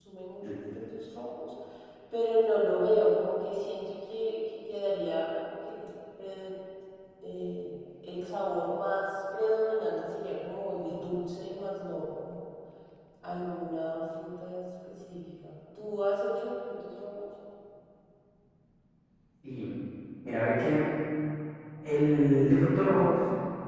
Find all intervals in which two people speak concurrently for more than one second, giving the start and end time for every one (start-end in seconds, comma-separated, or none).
none